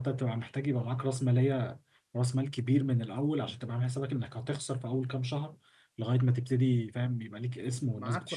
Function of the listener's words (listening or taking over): taking over